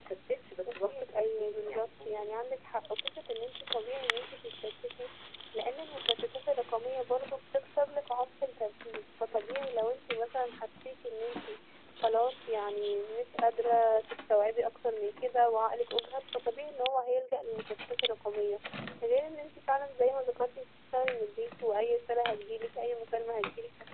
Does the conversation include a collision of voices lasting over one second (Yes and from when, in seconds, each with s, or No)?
Yes, from 0.9 s